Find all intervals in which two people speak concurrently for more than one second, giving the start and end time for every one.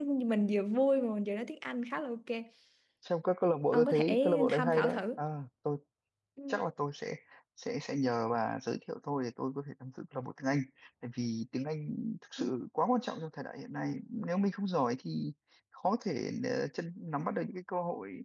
3.7-5.1

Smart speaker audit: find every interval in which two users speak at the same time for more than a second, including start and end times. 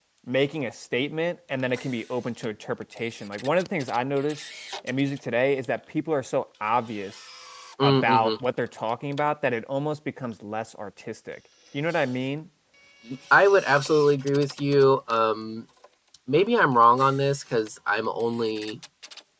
none

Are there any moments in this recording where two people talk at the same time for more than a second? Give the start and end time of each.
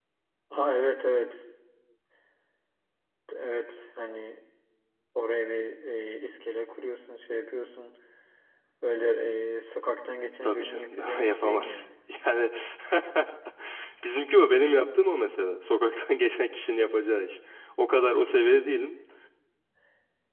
10.4-11.8

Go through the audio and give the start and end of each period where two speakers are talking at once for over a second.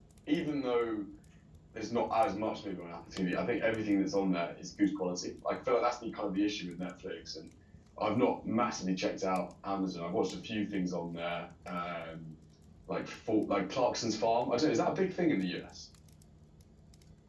none

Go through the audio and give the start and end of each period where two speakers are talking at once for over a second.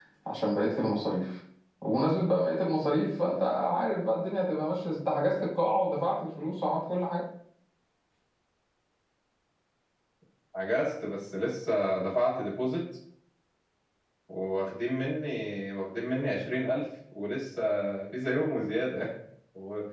none

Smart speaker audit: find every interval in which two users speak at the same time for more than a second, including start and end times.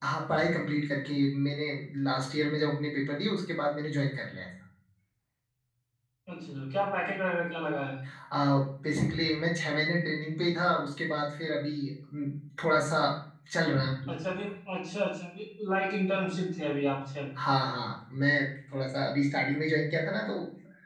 none

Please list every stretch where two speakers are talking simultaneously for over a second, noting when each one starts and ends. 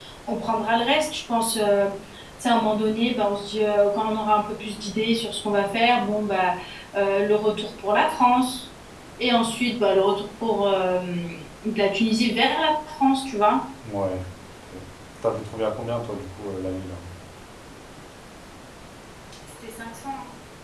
none

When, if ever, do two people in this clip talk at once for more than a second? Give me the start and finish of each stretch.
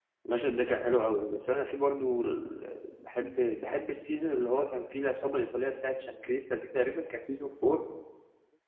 none

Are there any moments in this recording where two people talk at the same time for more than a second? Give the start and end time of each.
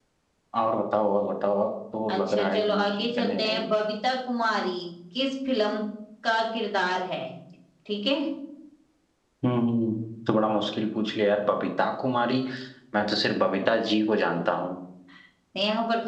2.1-3.8

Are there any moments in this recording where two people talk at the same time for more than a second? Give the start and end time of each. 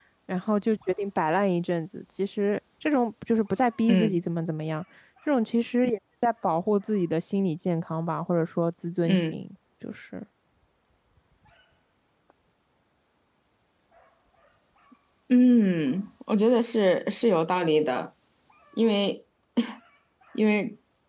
none

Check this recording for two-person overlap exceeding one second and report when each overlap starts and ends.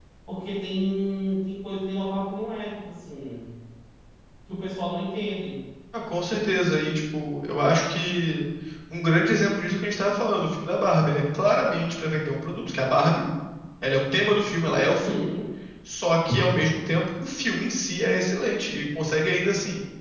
none

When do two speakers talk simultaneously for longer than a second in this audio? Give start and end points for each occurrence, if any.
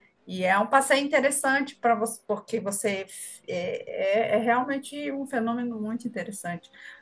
none

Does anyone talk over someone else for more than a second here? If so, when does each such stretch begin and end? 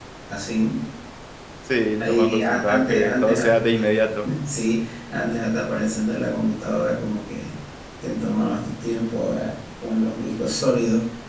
2.0-3.5

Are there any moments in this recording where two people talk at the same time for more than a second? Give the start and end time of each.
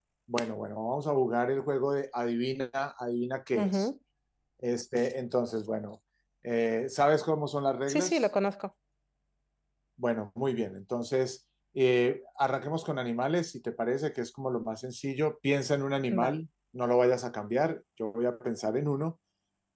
none

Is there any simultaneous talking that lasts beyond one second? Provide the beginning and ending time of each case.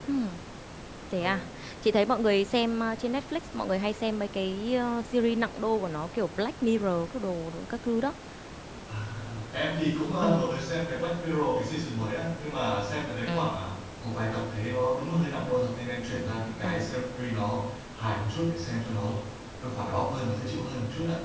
none

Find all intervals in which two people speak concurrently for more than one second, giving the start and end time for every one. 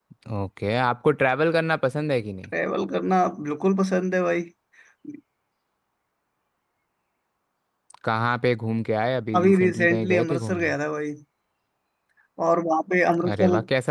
9.3-10.7

